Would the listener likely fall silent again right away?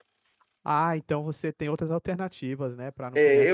No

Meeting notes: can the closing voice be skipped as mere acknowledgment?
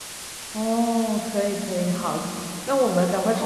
Yes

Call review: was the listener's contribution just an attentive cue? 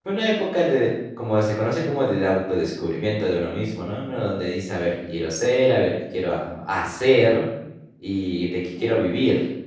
Yes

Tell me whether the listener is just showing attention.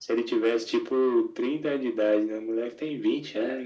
No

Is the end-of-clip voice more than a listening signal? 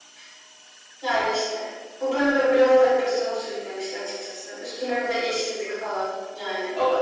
No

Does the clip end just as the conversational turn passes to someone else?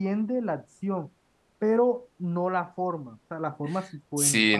Yes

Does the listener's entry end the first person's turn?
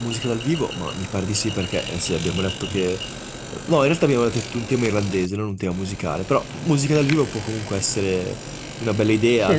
Yes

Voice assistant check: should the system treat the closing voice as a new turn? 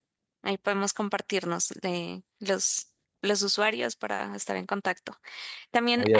No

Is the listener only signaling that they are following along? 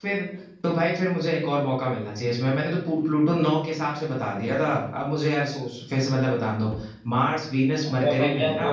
No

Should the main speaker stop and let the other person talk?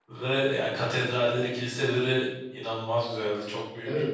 Yes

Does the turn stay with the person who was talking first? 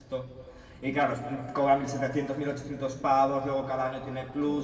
Yes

